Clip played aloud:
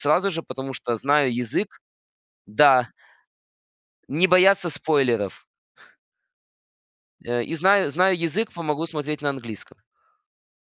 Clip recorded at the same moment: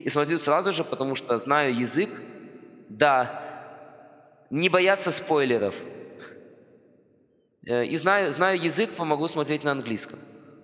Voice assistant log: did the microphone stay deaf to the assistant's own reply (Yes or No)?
No